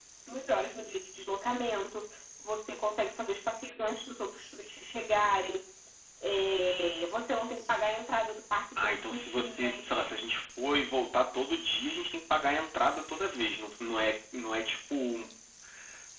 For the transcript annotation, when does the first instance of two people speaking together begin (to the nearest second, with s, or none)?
9 s